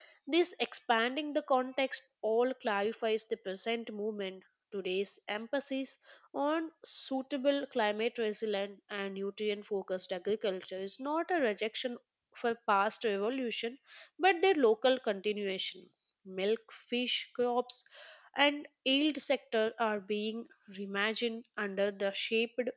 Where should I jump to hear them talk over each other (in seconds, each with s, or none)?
none